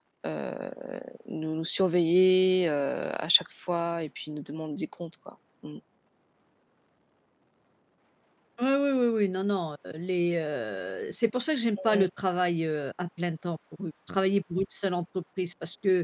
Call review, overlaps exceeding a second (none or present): none